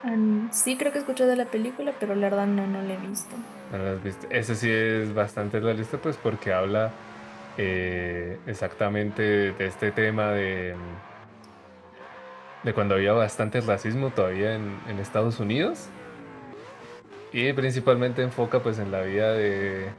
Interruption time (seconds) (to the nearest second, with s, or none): none